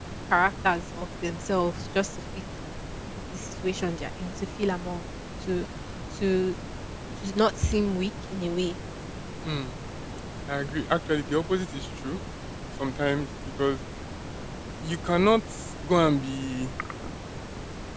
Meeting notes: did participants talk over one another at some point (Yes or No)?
No